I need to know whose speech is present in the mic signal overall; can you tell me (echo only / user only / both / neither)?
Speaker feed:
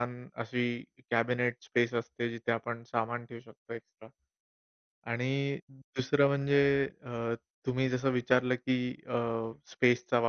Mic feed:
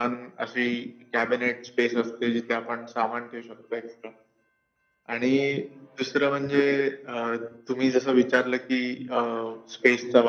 echo only